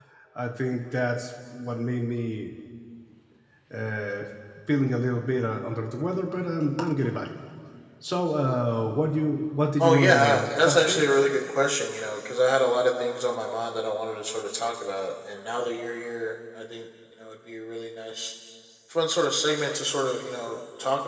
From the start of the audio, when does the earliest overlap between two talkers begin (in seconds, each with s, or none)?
9.8 s